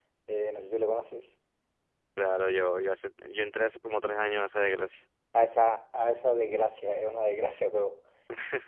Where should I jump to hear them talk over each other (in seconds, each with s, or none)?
none